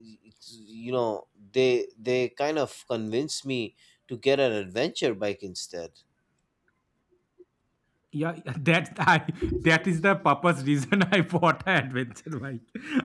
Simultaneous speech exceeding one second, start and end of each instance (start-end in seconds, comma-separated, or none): none